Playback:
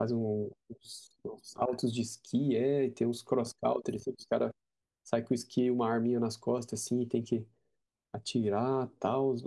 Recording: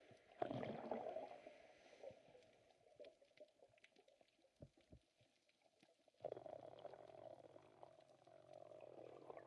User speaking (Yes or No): No